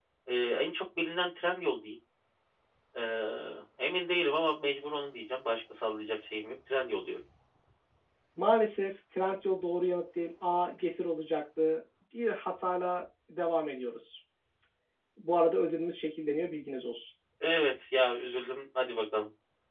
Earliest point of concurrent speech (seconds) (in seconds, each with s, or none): none